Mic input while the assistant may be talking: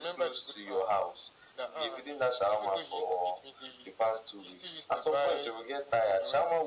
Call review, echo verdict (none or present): present